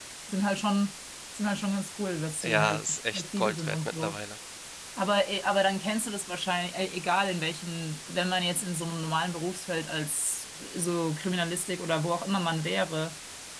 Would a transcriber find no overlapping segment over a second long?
No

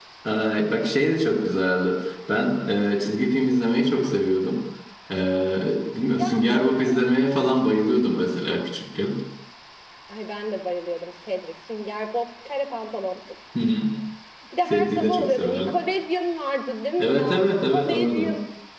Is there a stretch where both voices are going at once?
Yes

